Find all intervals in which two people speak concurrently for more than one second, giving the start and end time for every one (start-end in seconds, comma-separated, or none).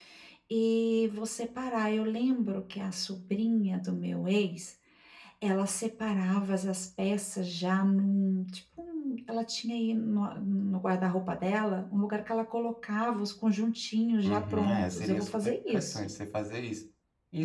14.2-16.0